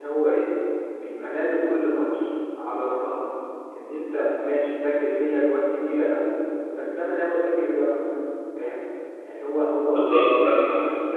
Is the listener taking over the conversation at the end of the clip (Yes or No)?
No